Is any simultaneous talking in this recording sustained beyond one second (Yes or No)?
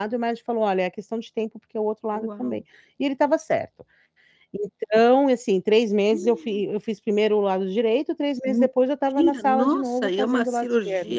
Yes